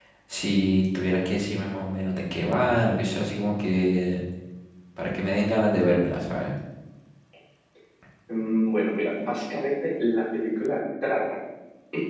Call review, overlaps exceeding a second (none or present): none